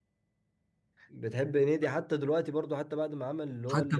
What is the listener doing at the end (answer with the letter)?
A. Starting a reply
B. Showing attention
A